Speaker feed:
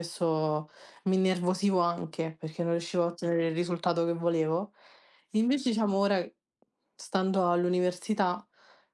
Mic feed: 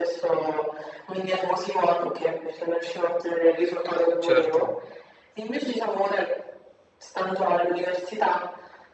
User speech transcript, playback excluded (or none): Certo.